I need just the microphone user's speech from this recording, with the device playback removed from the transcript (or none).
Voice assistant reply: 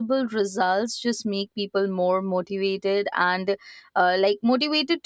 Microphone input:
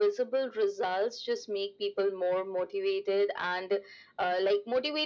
none